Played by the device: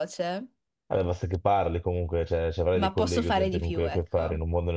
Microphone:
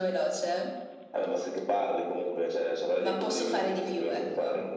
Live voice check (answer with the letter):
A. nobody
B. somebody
A